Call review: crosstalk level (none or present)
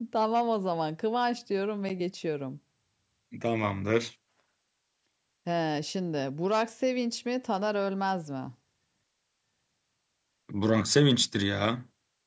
none